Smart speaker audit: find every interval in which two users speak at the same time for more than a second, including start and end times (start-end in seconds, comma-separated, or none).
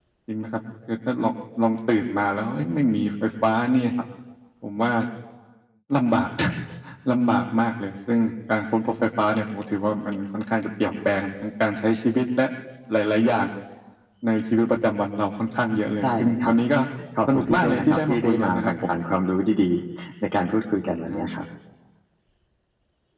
17.3-18.7